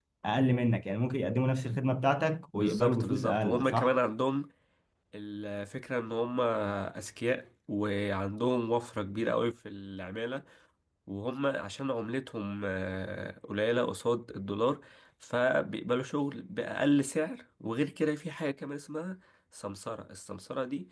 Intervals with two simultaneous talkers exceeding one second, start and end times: 2.5-3.9

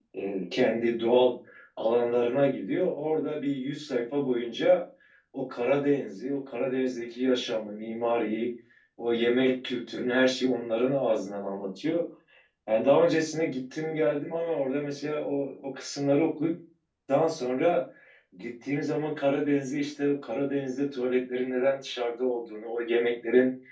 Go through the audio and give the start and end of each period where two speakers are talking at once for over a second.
none

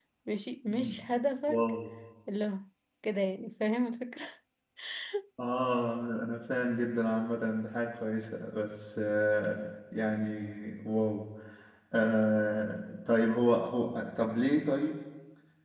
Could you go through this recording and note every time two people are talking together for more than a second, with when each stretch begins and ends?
none

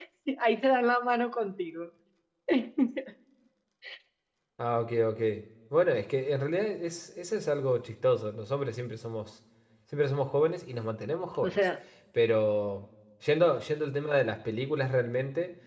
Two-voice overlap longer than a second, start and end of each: none

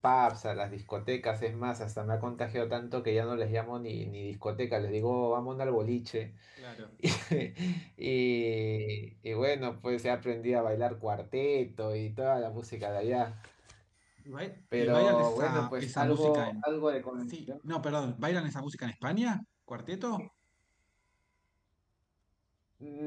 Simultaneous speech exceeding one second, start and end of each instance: 14.8-16.6

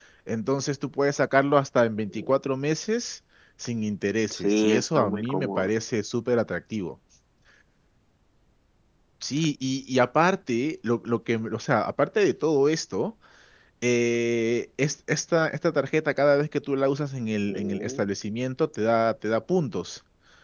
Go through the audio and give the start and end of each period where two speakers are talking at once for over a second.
4.3-5.7

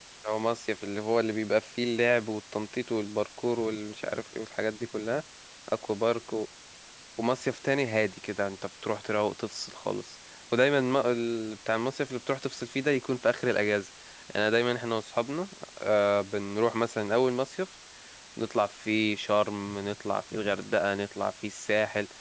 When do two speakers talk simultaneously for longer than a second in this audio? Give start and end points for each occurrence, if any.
none

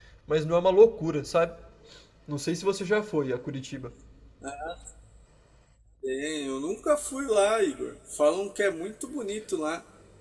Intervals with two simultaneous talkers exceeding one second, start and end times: none

